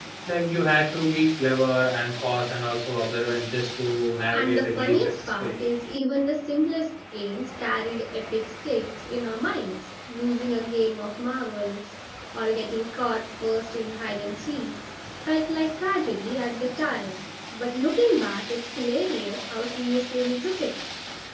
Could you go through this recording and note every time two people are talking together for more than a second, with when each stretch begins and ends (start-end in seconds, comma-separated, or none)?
4.3-5.6